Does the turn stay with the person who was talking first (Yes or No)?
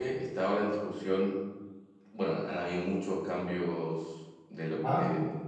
Yes